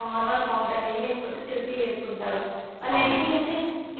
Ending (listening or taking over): listening